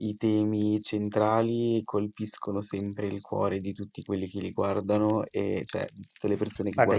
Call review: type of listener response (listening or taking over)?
taking over